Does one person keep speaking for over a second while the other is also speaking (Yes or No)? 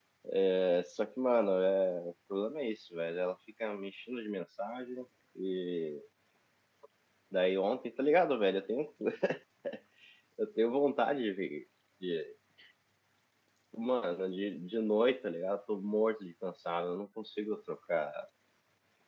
No